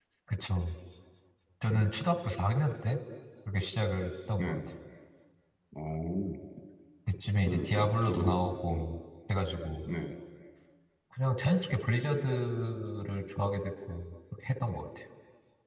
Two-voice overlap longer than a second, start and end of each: 7.5-8.8

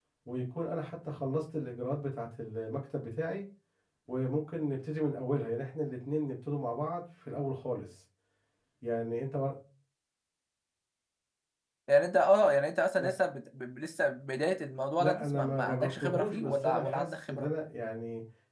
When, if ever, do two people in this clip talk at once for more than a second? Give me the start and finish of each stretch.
15.0-17.5

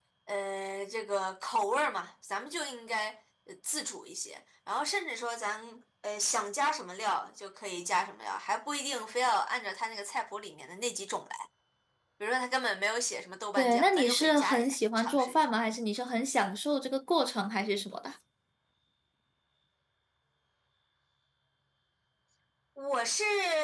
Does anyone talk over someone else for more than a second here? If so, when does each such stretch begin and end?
13.6-15.3

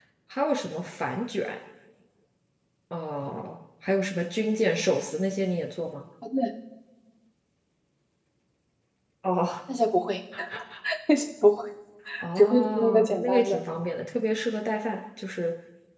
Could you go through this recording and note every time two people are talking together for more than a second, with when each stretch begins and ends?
12.4-13.6

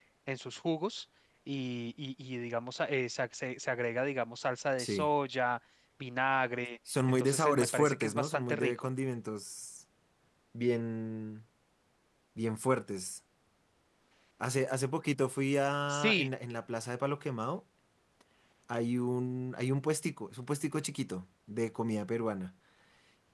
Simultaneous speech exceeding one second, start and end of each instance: 7.1-8.9

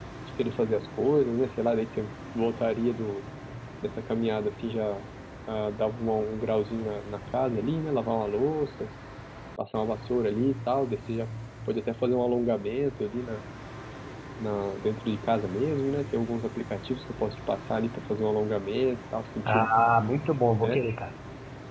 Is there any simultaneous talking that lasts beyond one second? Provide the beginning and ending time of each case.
none

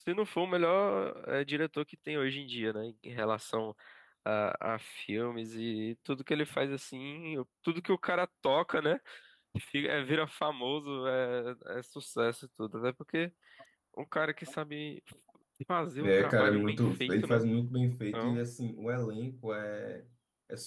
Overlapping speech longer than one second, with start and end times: 16.0-17.4

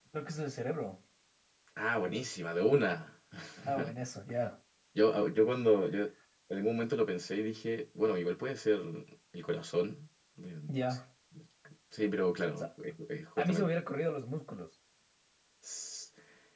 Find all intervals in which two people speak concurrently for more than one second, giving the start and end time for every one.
none

